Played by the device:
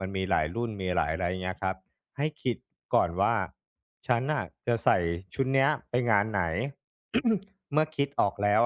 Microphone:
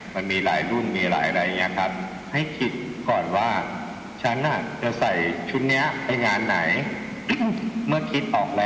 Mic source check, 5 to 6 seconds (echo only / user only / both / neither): echo only